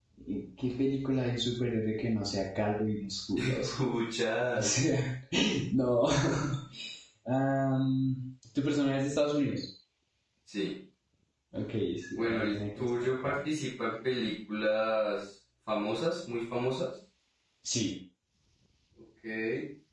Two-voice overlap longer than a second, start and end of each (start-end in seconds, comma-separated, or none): 12.1-13.3